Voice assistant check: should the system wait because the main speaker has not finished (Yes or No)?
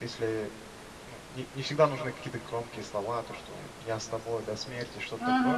Yes